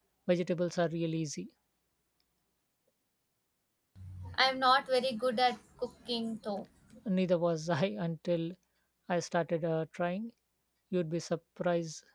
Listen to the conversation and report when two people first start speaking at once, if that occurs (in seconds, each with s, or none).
none